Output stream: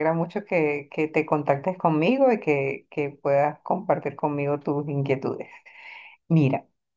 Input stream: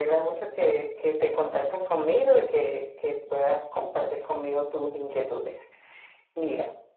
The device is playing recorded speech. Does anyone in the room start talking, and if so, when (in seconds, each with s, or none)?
none